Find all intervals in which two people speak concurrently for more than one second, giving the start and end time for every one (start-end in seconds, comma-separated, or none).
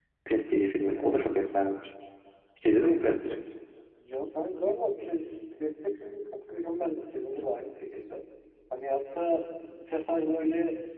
none